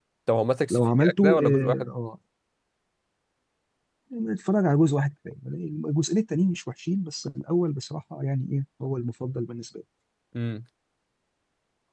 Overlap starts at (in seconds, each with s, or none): 0.7 s